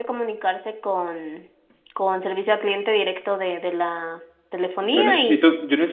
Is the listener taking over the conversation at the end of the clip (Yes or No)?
Yes